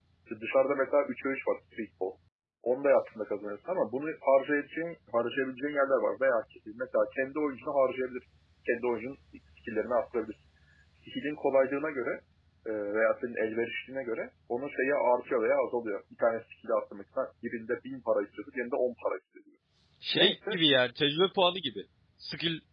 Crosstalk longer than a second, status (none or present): none